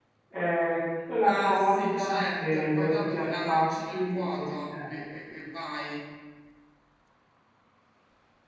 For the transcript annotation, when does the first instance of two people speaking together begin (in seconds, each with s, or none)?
1.2 s